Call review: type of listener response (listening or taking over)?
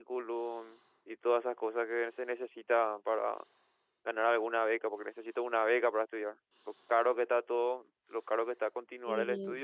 taking over